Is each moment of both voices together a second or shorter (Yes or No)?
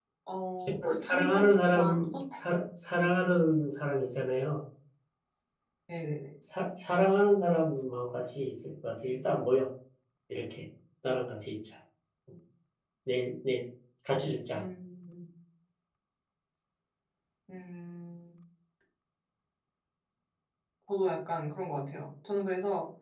No